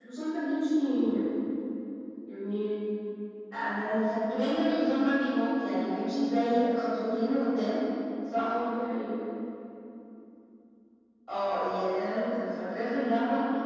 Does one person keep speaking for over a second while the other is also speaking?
No

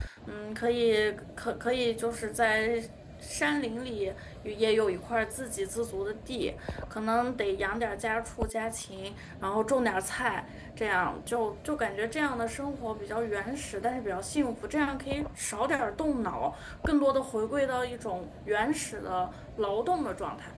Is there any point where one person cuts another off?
No

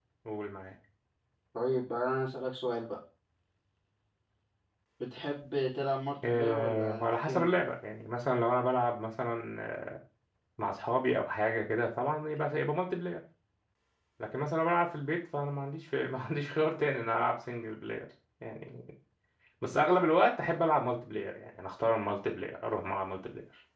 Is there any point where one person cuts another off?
Yes, from 6.2 s

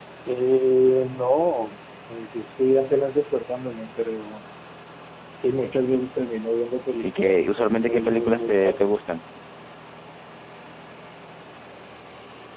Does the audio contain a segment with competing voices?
Yes, from 7.0 s

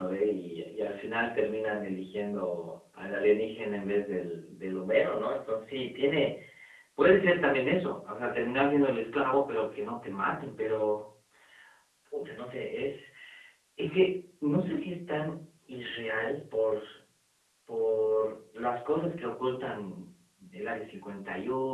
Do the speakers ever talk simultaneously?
No

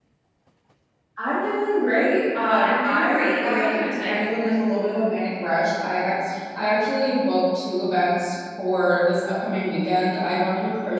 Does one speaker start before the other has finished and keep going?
Yes, from 2.3 s

